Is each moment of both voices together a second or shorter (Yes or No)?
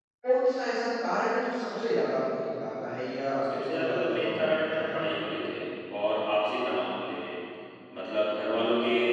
No